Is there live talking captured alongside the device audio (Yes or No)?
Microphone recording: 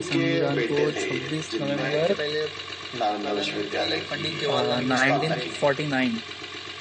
Yes